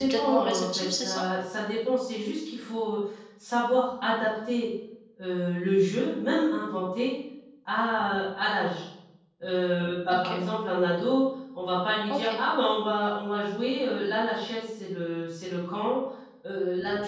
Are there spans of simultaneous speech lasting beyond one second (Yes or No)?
Yes